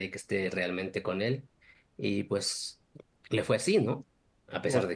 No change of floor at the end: Yes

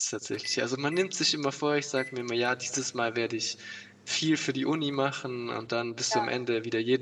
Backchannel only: Yes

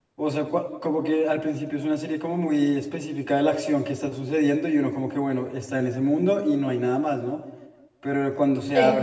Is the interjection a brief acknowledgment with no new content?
Yes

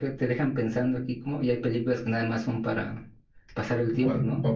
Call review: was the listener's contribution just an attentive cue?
No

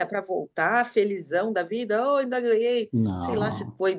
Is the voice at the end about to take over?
No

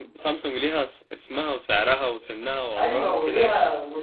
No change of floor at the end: No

